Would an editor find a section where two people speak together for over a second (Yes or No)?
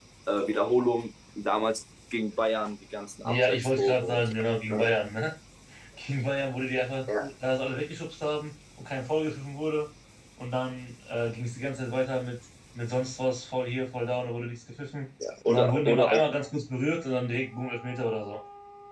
Yes